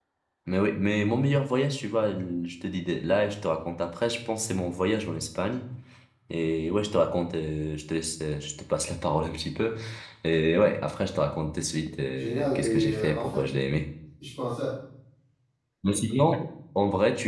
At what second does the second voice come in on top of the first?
12.2 s

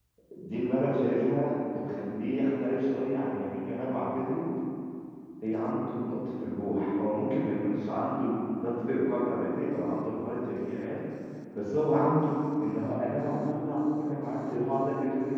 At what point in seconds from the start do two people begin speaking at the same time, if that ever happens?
none

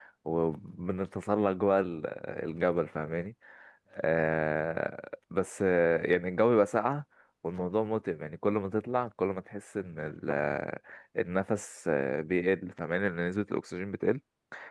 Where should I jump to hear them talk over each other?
none

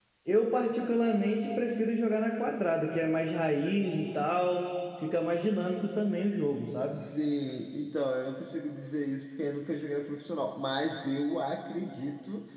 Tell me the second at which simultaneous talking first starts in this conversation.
none

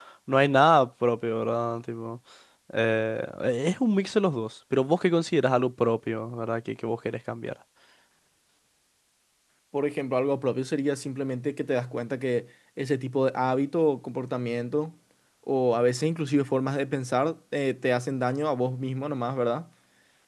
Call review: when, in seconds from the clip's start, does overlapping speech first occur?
none

